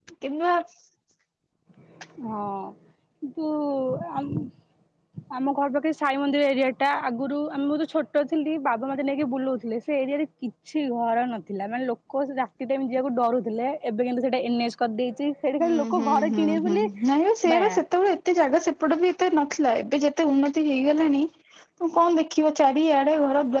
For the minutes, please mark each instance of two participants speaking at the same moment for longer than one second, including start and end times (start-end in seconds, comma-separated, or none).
15.6-16.9